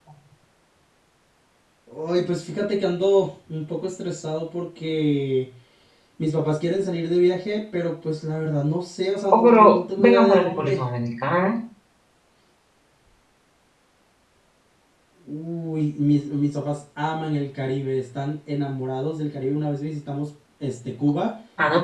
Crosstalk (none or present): present